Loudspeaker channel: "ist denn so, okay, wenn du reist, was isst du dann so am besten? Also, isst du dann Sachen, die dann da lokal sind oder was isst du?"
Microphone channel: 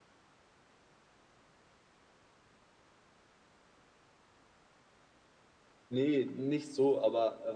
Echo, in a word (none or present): none